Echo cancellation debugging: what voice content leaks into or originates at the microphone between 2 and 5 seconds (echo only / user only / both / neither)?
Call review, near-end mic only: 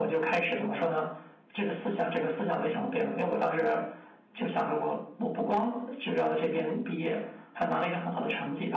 echo only